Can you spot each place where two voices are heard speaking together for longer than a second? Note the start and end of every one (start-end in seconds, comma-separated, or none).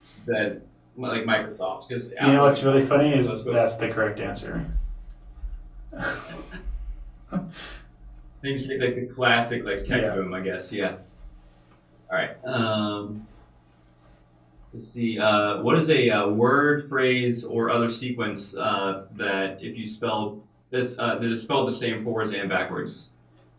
2.2-3.6